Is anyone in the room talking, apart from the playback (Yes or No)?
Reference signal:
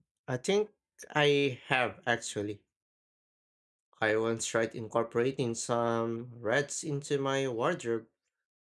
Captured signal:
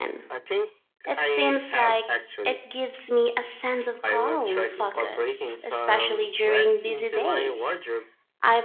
Yes